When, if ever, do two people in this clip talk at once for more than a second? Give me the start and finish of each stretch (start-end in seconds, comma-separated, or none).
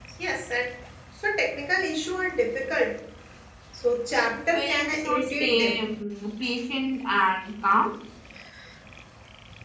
4.4-5.8